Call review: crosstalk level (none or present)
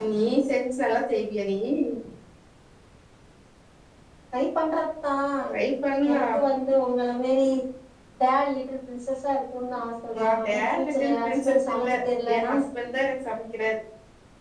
present